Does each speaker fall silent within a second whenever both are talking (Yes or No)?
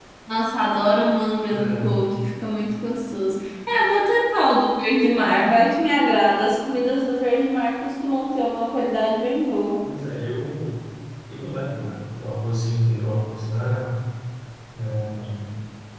Yes